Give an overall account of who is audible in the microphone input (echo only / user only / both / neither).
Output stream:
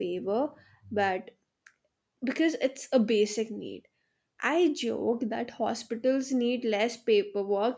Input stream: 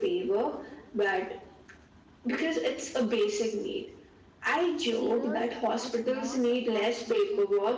both